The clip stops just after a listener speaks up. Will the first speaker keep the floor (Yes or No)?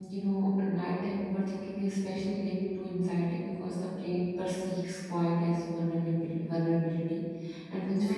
Yes